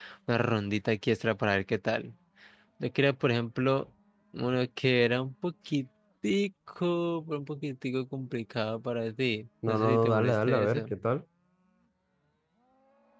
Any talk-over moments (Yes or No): Yes